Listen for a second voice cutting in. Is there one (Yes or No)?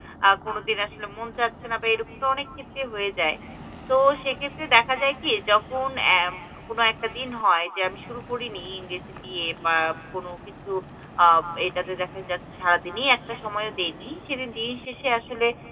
No